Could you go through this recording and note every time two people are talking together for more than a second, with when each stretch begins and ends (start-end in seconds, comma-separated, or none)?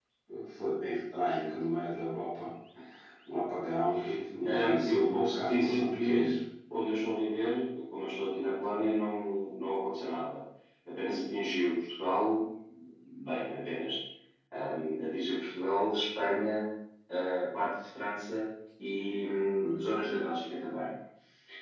4.5-6.3